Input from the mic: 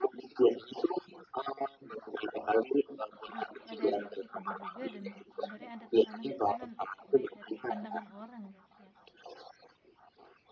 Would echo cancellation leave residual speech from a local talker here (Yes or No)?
Yes